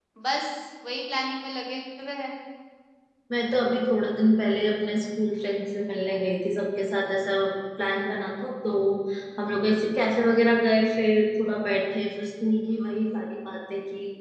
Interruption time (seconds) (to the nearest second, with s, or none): none